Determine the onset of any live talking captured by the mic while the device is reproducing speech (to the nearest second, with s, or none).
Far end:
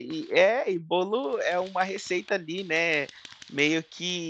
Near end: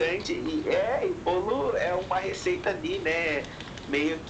none